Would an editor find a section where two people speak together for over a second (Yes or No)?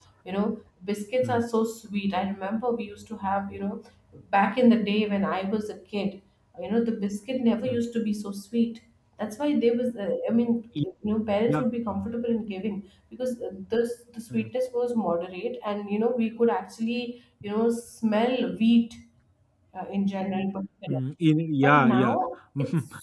No